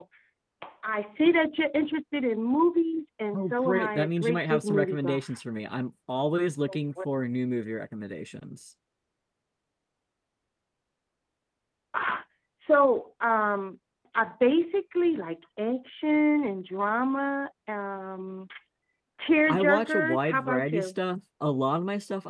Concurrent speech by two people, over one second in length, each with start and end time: 3.3-5.3, 19.5-21.0

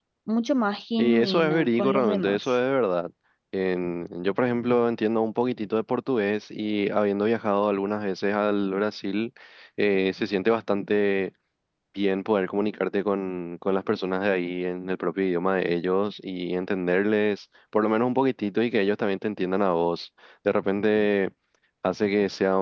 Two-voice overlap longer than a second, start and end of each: 1.0-2.6

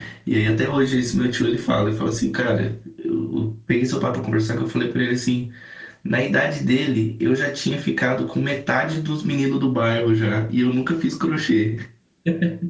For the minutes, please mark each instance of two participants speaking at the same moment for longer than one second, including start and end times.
none

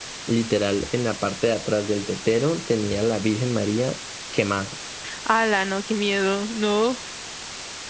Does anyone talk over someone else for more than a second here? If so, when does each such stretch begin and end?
none

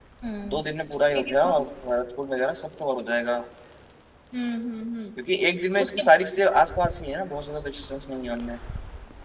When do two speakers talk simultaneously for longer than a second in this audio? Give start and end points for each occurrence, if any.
none

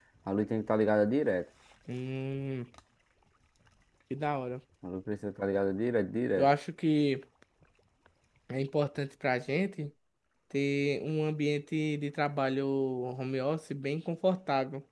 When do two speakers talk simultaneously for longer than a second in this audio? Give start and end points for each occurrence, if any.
none

